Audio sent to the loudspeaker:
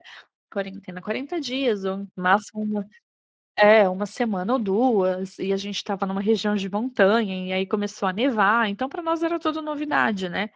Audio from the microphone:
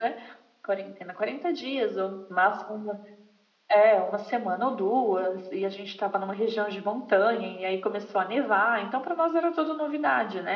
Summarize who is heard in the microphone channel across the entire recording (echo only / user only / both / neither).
echo only